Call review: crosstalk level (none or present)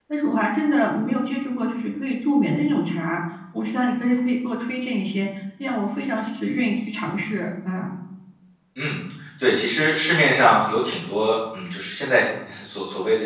none